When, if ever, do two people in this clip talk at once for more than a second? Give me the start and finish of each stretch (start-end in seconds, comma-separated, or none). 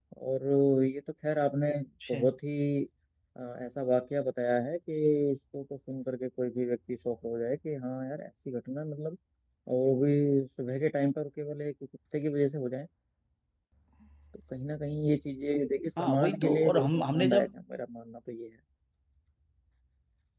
16.0-17.5